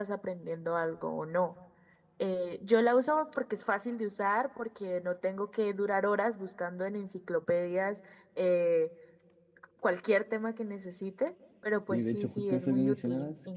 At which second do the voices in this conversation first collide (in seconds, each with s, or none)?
11.9 s